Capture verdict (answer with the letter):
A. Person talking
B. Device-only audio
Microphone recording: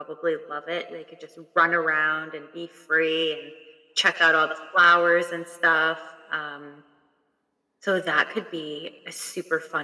B